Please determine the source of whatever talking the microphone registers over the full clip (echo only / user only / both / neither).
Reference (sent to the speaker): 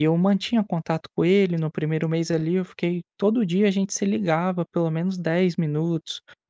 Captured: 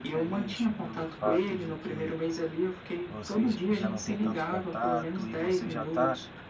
both